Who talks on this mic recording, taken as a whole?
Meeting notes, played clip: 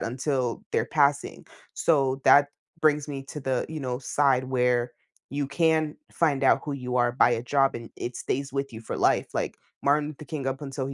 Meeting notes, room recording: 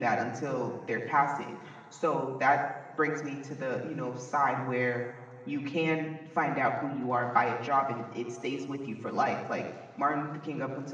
echo only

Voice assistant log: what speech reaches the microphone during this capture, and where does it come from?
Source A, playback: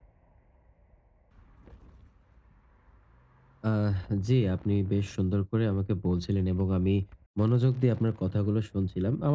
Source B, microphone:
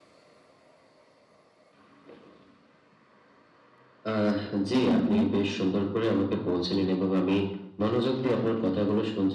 both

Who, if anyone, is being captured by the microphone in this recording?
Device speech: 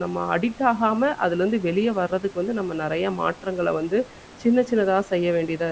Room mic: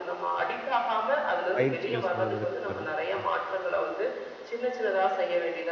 both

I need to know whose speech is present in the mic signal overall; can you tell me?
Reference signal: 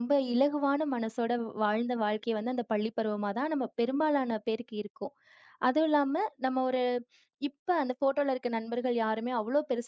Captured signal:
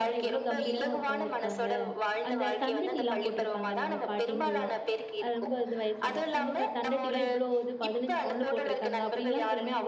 both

